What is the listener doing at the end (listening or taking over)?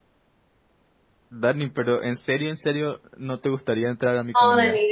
taking over